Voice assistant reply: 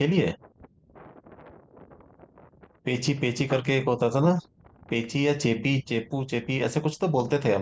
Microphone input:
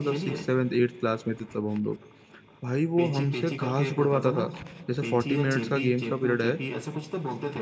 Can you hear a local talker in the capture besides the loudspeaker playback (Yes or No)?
Yes